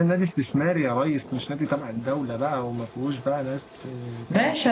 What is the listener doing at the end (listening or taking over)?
taking over